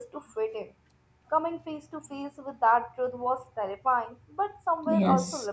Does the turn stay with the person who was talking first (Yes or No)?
No